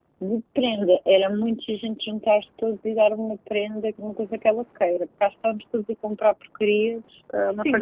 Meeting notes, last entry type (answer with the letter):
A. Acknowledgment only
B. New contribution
B